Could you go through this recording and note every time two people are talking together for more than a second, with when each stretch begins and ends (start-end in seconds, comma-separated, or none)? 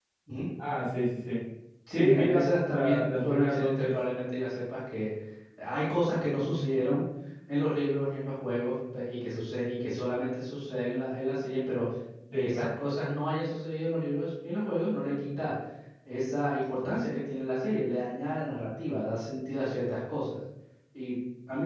1.9-4.0